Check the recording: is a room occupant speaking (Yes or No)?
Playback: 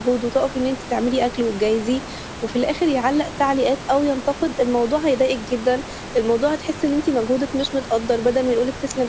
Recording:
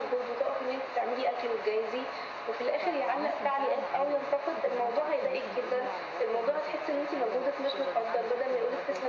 Yes